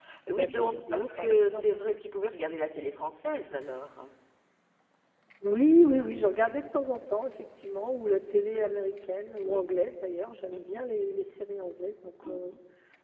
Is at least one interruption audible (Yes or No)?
Yes